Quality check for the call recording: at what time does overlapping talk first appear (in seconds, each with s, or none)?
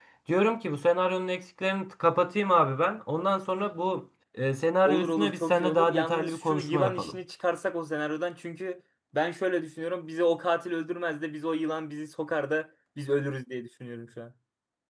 4.8 s